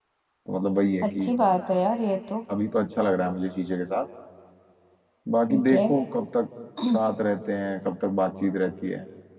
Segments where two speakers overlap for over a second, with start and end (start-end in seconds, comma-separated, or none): none